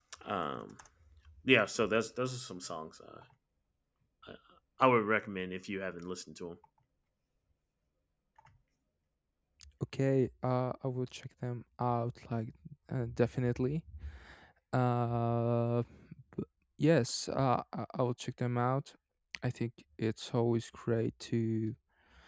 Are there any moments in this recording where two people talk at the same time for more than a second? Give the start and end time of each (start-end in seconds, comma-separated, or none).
none